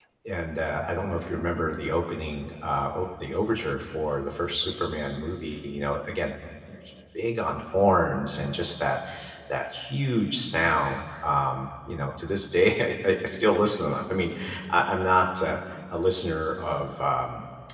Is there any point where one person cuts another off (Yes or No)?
No